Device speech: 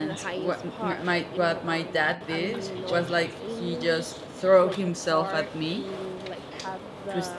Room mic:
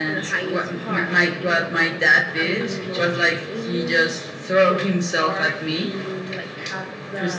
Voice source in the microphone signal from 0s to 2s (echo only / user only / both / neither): echo only